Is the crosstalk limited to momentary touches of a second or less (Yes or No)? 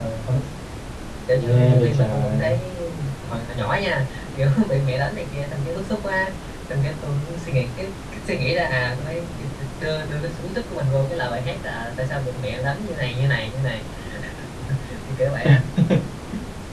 No